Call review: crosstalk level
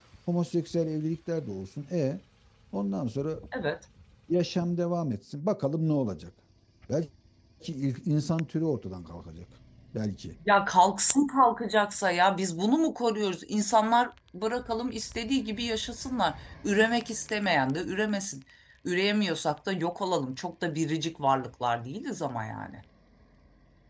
none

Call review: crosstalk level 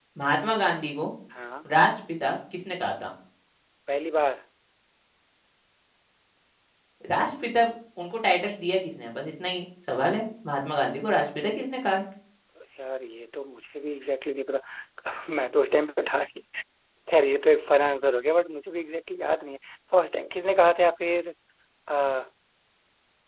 none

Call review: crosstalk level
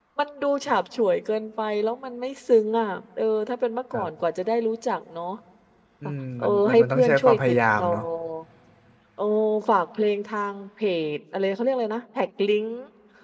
present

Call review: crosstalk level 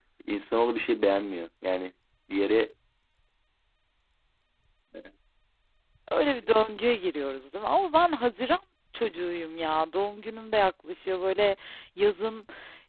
none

